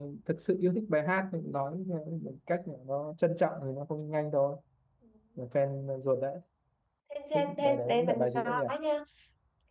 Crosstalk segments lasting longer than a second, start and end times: 7.3-8.6

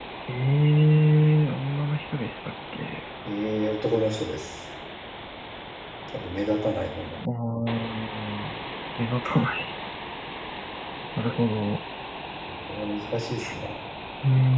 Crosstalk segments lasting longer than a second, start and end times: none

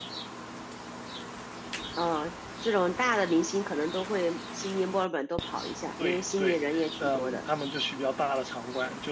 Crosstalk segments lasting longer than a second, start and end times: 6.0-7.4

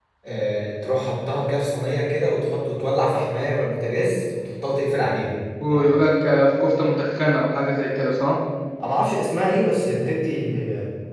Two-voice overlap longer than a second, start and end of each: none

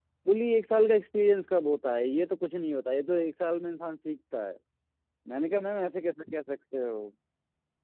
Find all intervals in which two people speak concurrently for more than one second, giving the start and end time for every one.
none

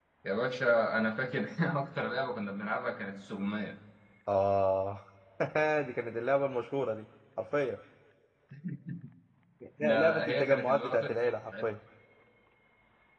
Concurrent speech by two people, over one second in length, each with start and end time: 9.8-11.1

